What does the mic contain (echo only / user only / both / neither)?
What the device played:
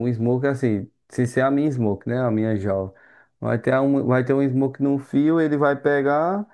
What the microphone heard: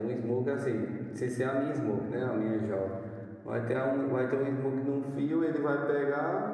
echo only